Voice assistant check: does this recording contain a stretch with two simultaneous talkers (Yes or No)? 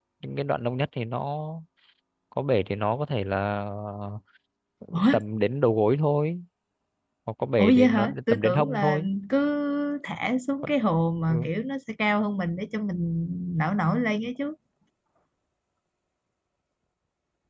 Yes